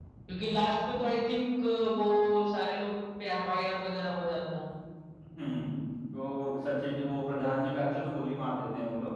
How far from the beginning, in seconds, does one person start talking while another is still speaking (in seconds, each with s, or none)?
none